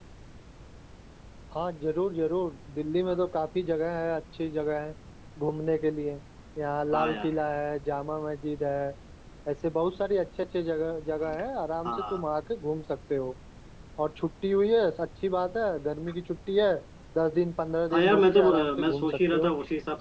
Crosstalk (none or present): present